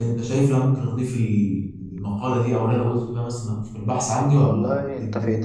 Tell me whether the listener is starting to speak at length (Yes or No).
Yes